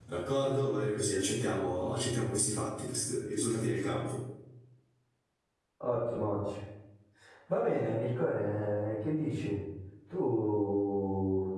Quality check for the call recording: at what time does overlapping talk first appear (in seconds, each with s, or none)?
none